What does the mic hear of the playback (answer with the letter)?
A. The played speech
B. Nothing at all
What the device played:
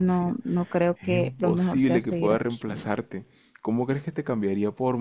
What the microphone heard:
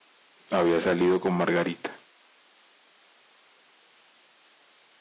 B